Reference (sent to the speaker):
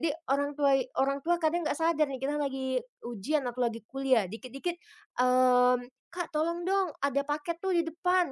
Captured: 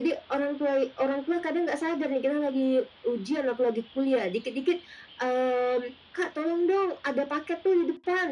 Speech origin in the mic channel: echo only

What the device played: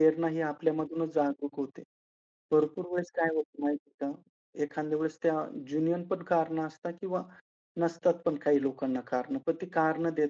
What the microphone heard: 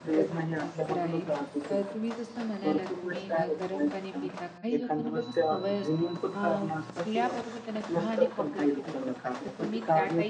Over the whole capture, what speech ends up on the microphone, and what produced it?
both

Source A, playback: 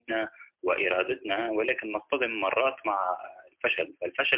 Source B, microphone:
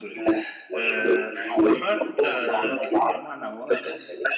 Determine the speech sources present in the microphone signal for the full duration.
both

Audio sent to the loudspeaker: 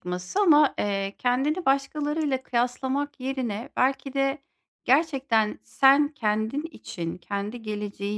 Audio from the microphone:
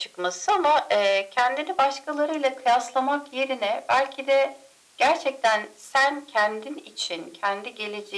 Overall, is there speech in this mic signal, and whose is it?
echo only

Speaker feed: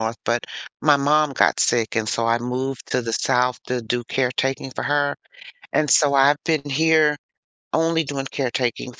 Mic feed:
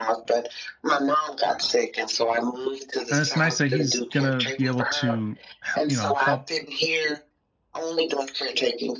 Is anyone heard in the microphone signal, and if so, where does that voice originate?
both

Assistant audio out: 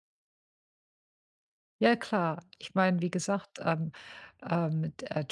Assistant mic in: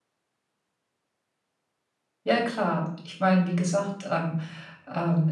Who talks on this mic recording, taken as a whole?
echo only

